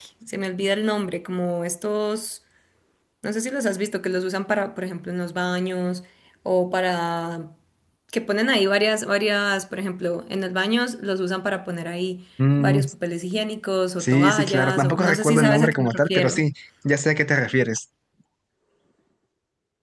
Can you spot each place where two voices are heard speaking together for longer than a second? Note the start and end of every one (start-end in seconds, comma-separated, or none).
14.0-16.4